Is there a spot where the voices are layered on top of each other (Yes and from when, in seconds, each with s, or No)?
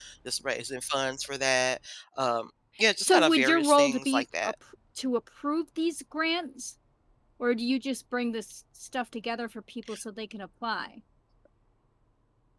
Yes, from 3.0 s